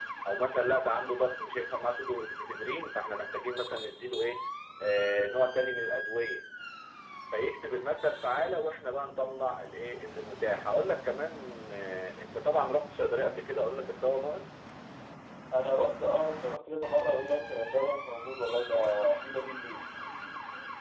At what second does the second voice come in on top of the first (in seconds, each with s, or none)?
none